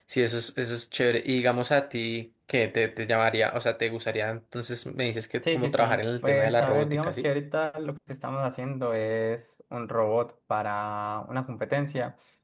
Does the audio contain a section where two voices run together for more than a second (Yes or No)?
Yes